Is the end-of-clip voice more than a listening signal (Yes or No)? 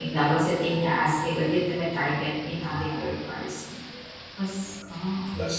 No